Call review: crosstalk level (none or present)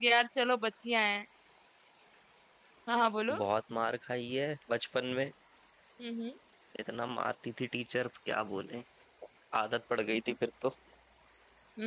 none